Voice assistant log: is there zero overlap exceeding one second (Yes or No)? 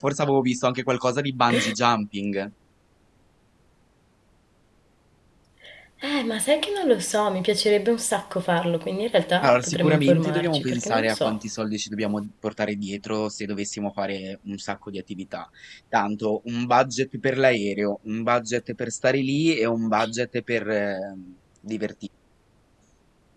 No